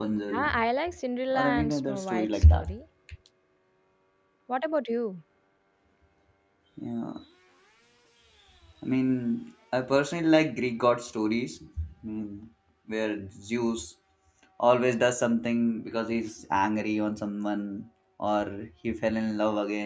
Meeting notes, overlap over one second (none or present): present